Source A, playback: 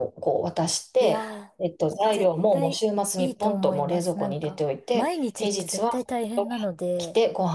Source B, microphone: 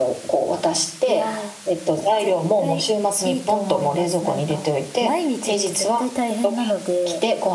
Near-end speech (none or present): none